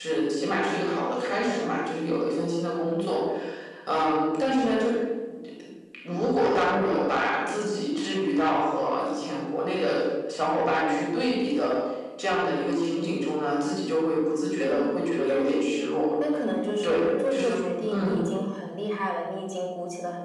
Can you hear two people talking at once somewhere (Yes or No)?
Yes